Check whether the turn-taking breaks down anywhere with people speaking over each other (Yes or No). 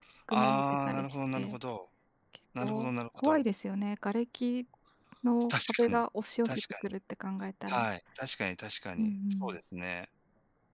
Yes